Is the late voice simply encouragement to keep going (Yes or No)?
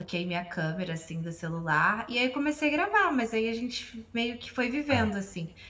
Yes